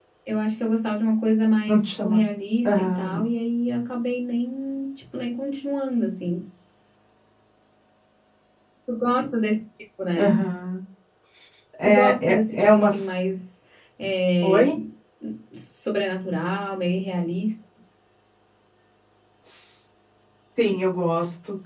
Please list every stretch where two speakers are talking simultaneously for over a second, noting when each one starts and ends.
11.8-13.2

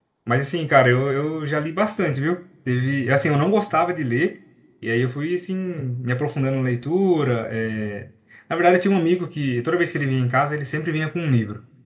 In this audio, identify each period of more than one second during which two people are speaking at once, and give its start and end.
none

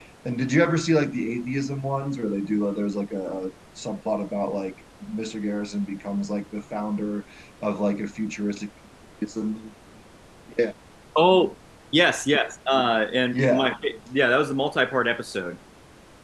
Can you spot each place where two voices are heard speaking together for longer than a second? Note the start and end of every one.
none

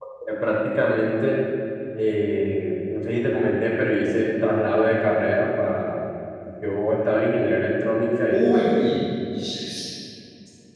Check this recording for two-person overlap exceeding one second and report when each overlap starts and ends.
none

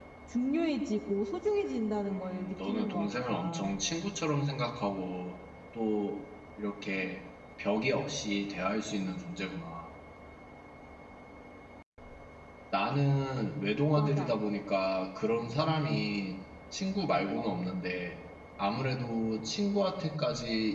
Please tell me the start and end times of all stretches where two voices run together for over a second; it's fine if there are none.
2.1-3.7

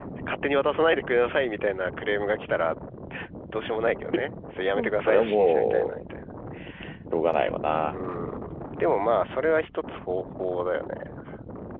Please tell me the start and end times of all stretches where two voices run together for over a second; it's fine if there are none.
4.8-6.0

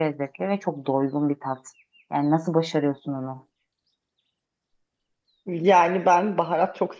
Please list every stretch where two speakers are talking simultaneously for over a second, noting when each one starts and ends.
none

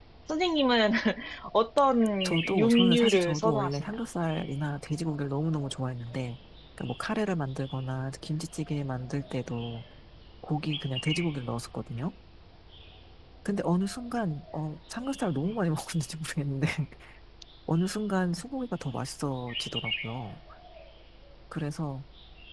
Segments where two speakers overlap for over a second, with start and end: 2.2-3.9

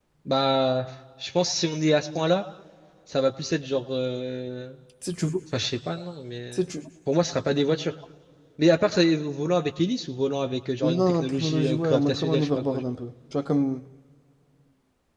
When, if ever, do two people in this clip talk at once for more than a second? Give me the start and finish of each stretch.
10.8-12.9

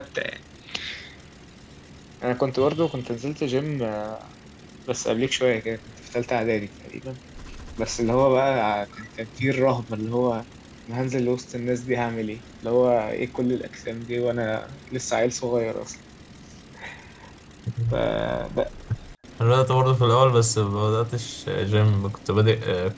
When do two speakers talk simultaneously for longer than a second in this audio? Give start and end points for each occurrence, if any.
none

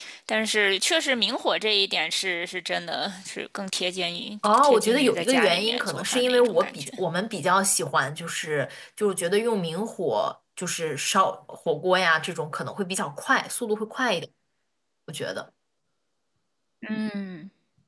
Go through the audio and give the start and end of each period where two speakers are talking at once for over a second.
4.4-6.9

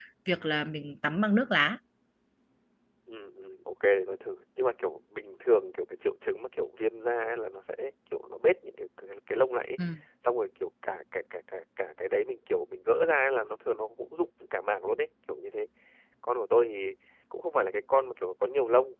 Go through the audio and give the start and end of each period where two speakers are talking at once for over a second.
none

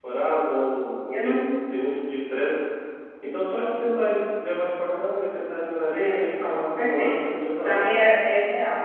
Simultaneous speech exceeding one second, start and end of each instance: 5.9-7.2

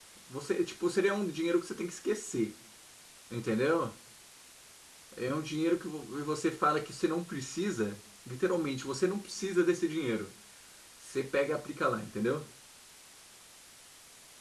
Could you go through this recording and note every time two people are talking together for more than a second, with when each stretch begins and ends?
none

